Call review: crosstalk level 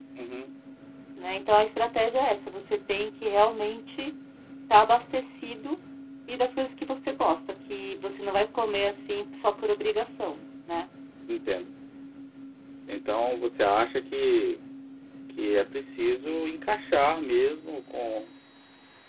none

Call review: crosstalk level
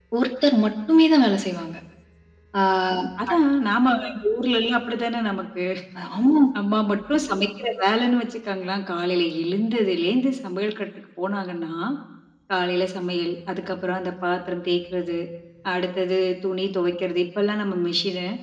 none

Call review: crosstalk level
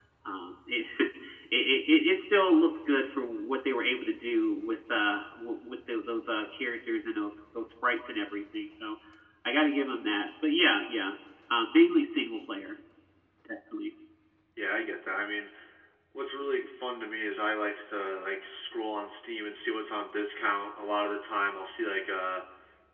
none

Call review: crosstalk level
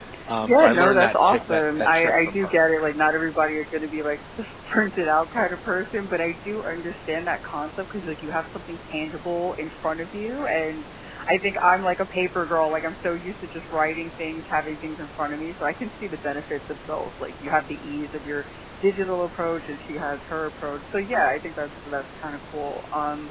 present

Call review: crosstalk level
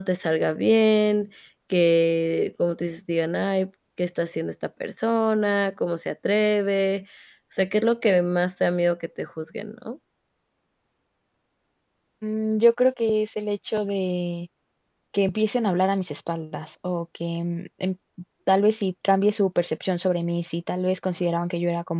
none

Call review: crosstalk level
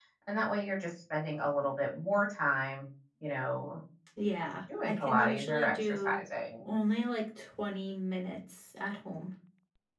present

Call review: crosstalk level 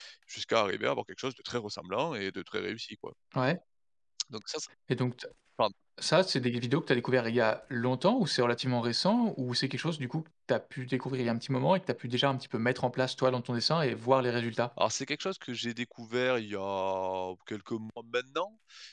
none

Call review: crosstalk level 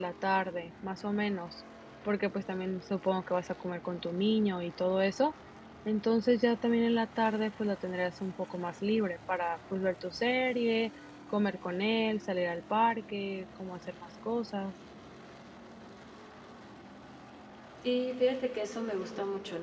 none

